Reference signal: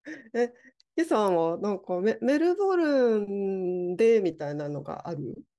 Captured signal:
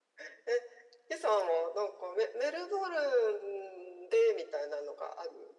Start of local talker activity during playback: none

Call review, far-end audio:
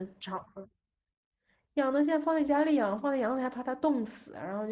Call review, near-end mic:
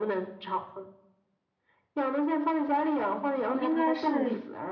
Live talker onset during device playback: 3.5 s

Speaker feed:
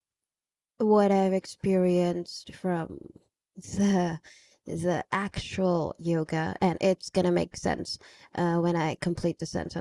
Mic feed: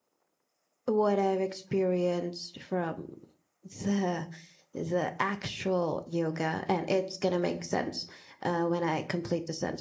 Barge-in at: none

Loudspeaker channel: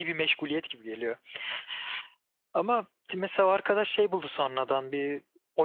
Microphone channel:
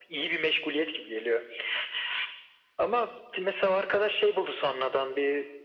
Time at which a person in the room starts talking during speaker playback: none

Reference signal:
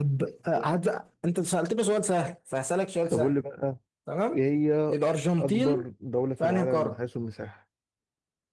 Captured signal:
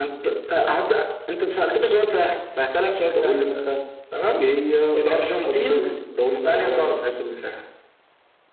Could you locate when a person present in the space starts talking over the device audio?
none

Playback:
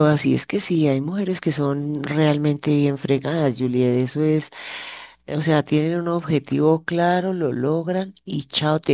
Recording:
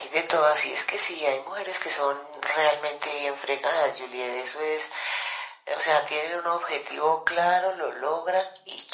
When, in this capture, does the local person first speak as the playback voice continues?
none

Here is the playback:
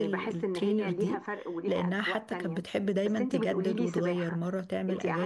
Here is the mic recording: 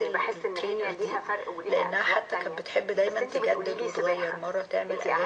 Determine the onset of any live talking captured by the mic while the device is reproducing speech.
none

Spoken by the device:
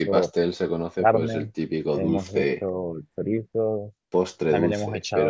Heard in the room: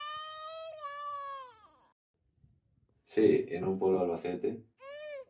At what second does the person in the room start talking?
3.0 s

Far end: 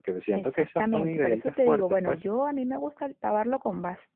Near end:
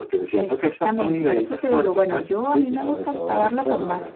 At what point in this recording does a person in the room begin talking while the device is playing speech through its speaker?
2.4 s

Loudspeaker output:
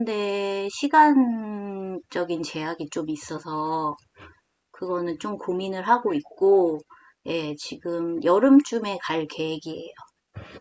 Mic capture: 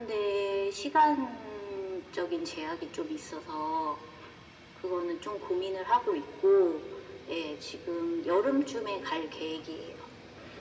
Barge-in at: none

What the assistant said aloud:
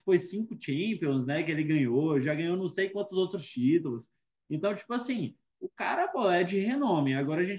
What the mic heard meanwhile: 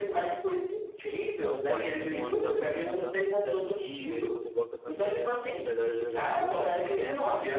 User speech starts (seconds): 1.2 s

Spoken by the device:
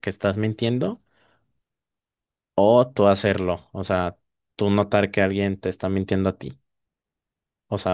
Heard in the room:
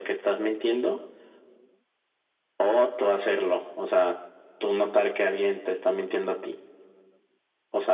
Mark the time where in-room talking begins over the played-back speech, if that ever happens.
none

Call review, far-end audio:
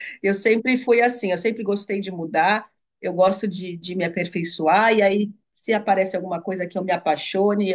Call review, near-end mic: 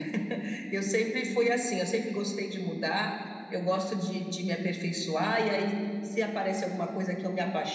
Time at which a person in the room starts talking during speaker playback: none

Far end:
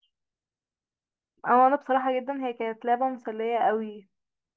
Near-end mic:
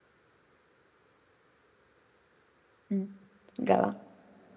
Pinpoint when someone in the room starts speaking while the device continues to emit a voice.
2.9 s

